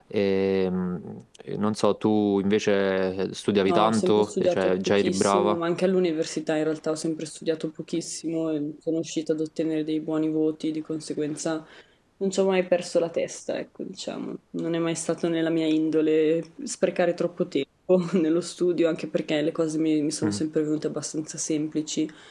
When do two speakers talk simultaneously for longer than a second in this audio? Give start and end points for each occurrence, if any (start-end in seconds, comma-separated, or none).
3.6-5.6